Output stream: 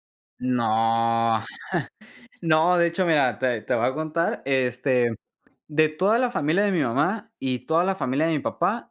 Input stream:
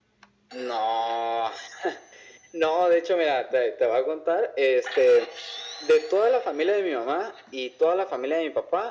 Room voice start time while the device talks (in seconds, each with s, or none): none